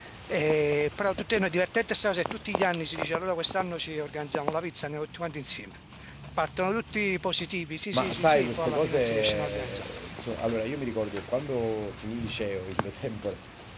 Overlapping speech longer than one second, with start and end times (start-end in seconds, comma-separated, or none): 7.9-9.8